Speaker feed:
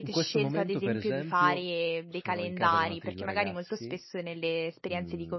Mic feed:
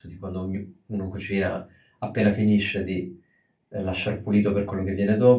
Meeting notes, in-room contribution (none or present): present